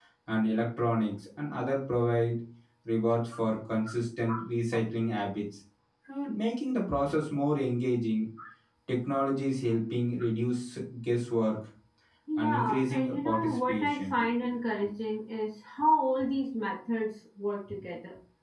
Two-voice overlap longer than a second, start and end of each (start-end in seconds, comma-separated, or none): 12.4-14.1